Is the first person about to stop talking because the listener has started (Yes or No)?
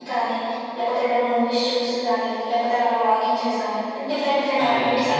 Yes